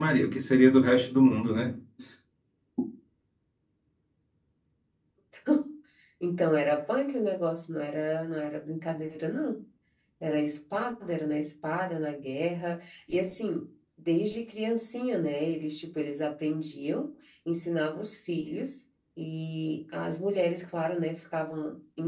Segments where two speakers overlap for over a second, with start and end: none

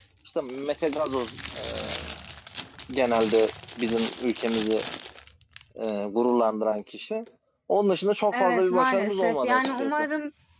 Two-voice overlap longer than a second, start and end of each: 8.3-10.1

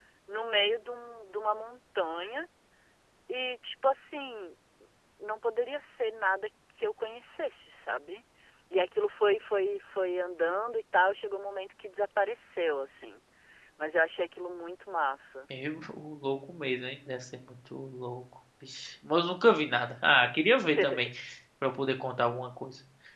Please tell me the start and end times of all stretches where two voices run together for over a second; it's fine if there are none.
none

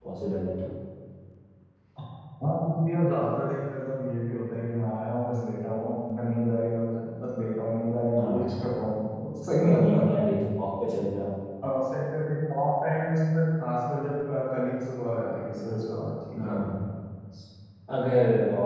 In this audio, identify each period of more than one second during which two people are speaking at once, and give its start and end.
none

